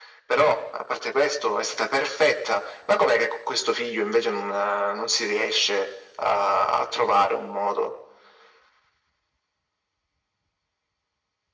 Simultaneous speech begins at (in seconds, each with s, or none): none